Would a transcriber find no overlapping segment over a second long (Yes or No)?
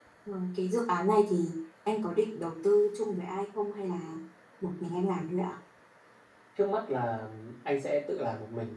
Yes